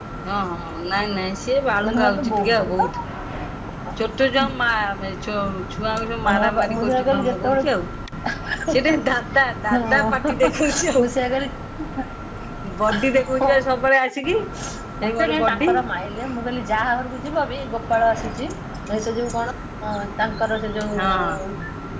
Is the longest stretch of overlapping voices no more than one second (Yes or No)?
No